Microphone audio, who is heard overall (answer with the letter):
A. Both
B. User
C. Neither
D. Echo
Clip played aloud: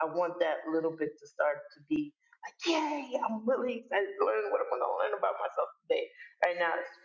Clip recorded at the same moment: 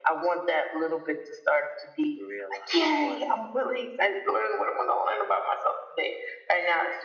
A